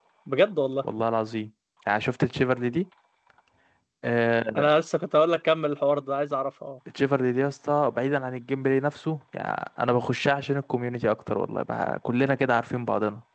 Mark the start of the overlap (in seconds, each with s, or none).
none